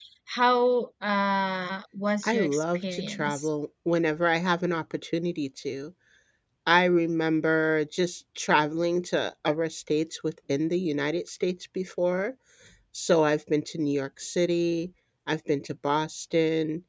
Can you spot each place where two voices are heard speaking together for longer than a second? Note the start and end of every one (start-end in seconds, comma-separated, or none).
2.2-3.5